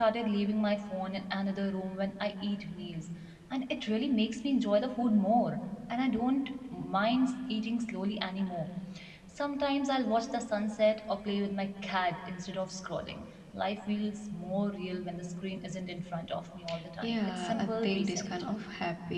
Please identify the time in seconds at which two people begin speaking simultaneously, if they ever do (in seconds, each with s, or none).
17.0 s